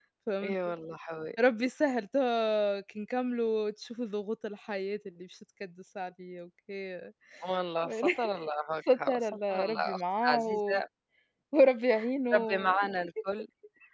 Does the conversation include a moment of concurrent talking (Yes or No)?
Yes